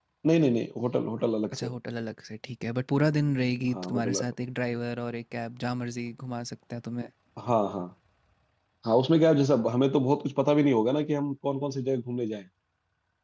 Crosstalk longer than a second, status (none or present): none